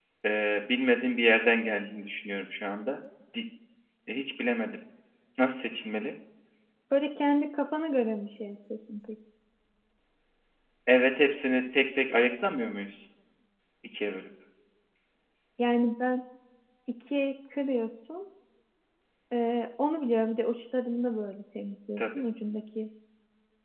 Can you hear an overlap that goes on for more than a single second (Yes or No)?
No